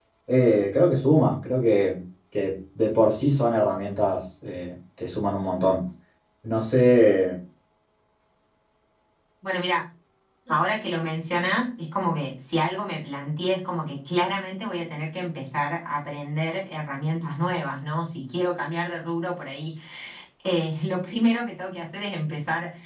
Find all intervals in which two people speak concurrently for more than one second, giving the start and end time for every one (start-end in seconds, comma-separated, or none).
none